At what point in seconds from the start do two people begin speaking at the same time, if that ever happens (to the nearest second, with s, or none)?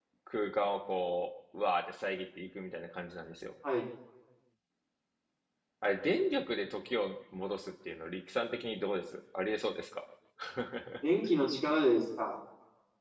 none